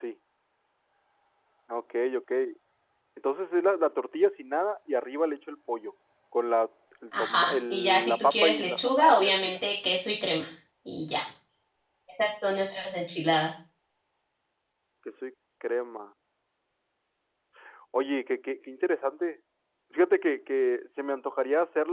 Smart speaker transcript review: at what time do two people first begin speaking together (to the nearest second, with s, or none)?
7 s